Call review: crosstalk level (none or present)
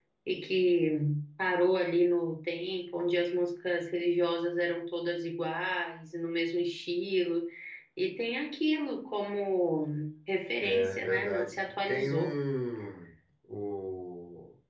present